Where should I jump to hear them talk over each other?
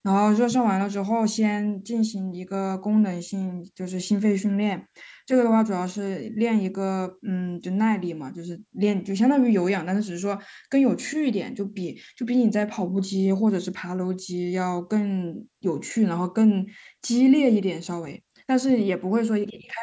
none

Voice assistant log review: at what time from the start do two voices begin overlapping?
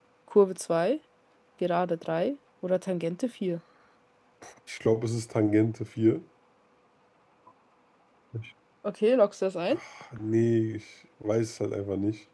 none

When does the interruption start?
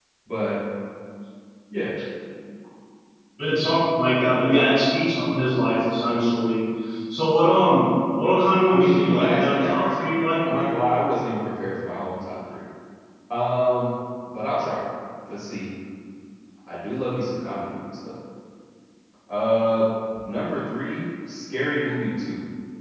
8.7 s

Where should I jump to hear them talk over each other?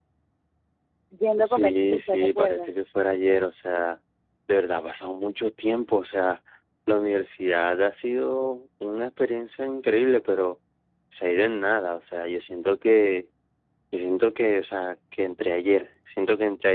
1.4 s

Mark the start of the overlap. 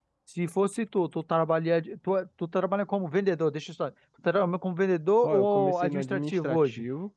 5.2 s

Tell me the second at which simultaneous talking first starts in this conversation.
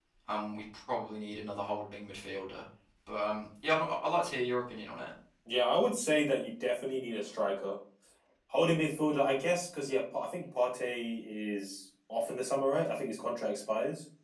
none

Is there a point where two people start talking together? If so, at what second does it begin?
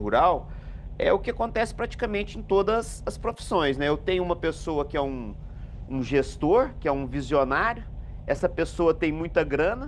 none

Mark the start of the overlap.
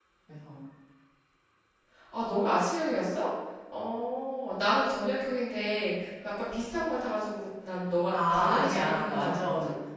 8.1 s

